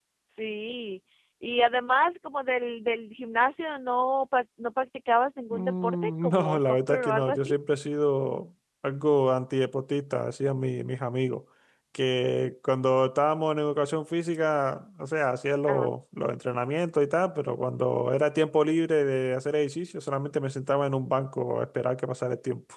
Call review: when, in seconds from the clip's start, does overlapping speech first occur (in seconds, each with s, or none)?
5.5 s